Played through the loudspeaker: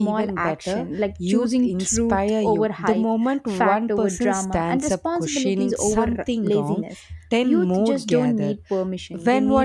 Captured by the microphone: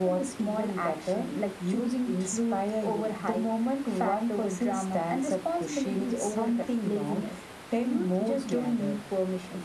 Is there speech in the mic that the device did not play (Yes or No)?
No